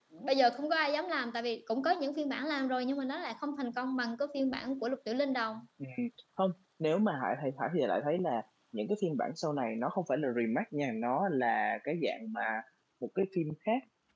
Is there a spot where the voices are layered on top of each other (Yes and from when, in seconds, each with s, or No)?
No